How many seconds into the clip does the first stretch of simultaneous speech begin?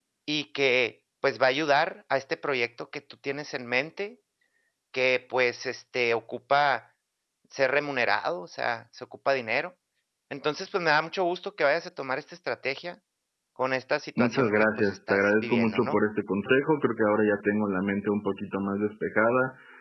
14.2 s

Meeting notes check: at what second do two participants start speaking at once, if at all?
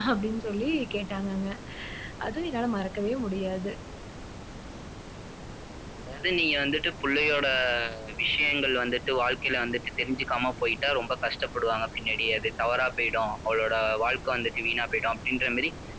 none

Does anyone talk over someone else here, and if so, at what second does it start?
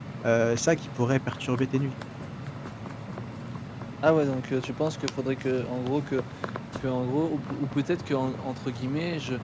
none

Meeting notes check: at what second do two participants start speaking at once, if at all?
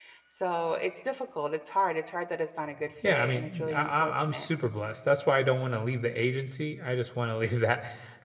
3.0 s

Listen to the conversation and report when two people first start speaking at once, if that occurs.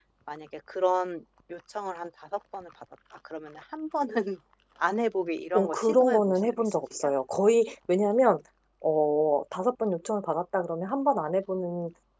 5.5 s

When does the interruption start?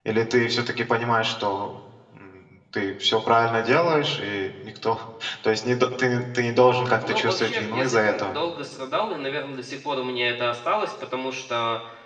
7.0 s

